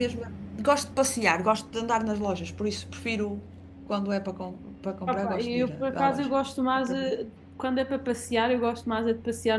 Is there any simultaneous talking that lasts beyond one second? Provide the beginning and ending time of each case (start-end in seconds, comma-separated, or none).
5.1-6.3